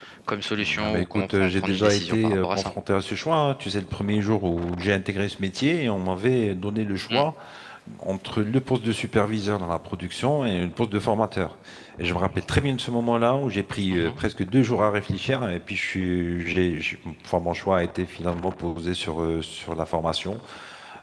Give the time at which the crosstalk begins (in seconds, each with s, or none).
0.6 s